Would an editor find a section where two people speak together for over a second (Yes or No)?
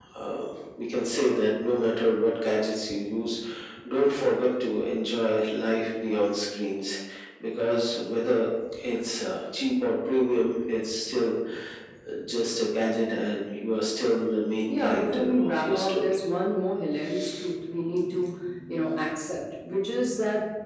Yes